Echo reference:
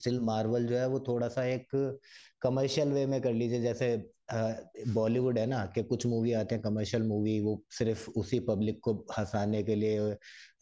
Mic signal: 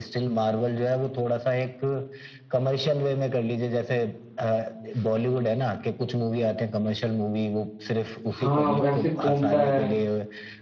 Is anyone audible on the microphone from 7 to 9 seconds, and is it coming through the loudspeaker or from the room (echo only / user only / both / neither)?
both